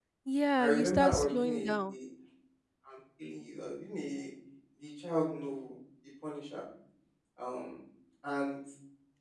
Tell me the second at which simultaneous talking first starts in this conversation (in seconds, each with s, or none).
0.6 s